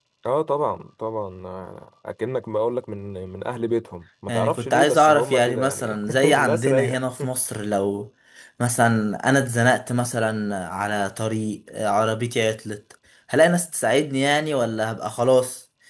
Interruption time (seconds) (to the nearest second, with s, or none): 4 s